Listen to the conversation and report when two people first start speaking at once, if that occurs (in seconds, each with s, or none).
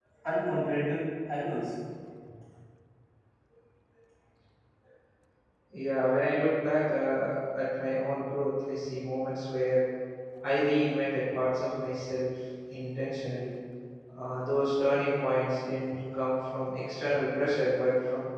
none